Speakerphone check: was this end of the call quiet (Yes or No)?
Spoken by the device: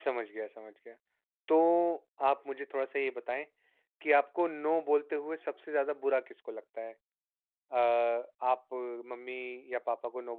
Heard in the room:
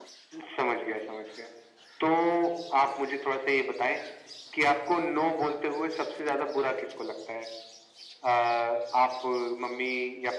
Yes